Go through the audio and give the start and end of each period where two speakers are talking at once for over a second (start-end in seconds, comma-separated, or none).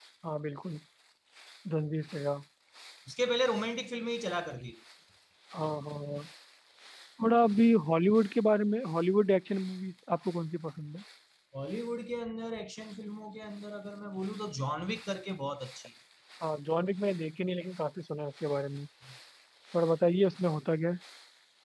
none